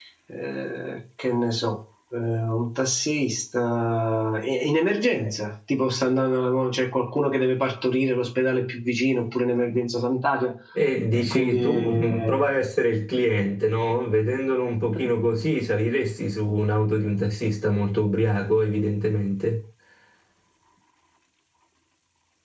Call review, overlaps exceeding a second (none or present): present